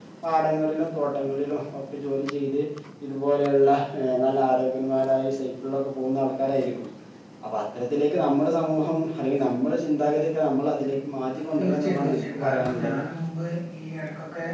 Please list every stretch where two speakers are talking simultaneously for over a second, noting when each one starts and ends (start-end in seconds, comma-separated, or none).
11.6-13.0